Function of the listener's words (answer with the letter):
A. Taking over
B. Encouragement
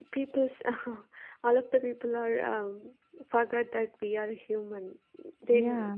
B